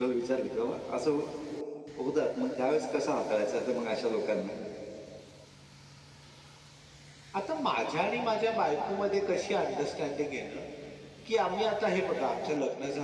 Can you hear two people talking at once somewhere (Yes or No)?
No